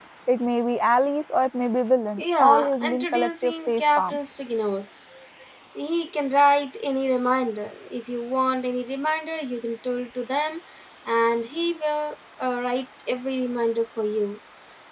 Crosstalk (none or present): present